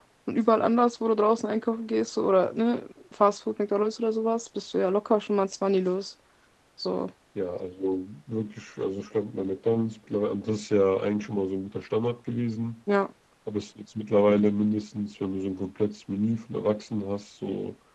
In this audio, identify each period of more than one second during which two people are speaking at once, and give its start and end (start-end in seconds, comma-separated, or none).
none